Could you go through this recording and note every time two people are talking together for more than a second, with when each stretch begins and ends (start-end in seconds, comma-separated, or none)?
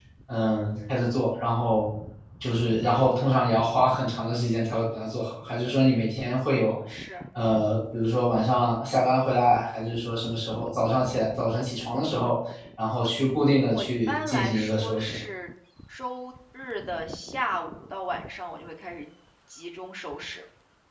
13.7-15.2